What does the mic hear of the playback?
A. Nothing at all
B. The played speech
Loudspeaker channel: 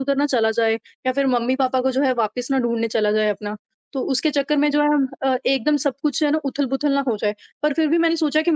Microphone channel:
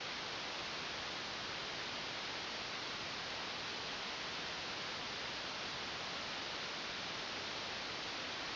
A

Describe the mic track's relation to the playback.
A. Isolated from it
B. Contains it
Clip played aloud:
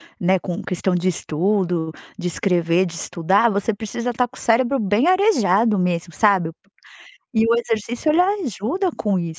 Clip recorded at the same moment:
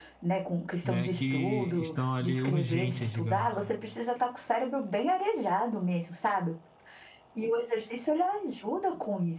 B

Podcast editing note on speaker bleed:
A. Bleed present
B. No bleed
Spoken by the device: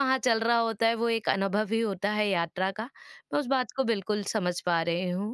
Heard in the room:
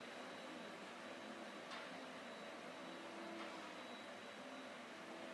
B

